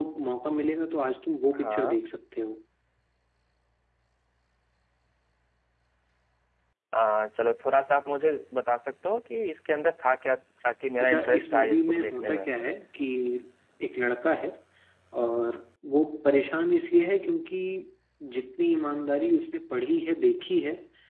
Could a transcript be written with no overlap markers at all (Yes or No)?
No